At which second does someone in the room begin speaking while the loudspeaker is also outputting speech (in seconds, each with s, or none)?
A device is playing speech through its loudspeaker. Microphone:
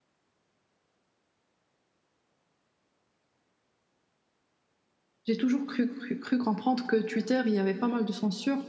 5.3 s